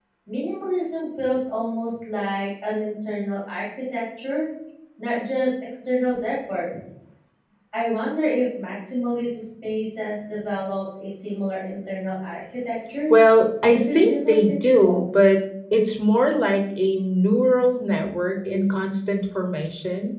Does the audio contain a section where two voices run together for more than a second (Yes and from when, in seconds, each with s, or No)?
Yes, from 13.7 s